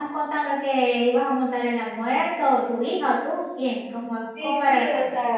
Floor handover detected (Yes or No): Yes